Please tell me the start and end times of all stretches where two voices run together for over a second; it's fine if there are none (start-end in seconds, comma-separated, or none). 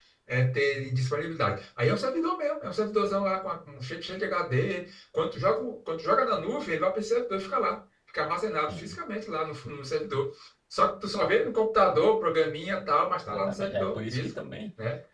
13.2-14.4